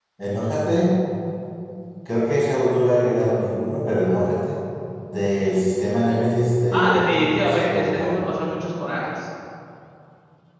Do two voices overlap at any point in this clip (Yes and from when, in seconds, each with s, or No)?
Yes, from 6.7 s